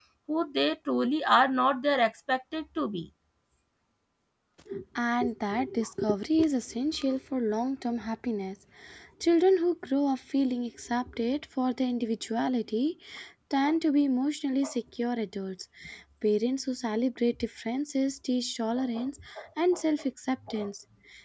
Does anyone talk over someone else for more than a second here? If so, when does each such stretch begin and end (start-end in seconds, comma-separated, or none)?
none